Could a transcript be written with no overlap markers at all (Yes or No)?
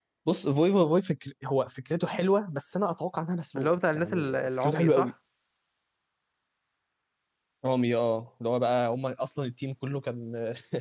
No